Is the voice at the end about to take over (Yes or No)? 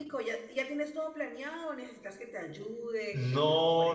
Yes